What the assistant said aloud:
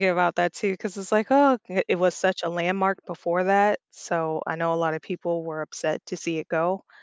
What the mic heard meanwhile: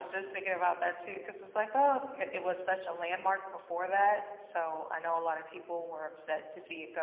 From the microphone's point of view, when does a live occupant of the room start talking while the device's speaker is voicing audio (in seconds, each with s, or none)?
none